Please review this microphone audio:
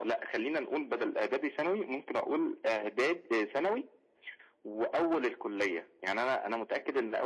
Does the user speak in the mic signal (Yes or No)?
No